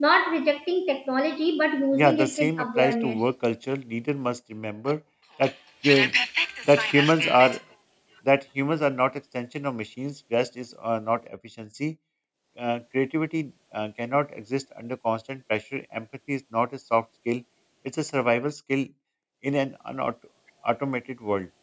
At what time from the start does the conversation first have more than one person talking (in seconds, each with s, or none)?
1.9 s